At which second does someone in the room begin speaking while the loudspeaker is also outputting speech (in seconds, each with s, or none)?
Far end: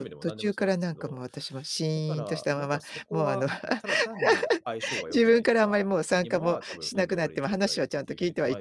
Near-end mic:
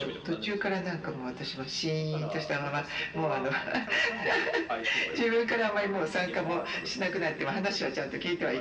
none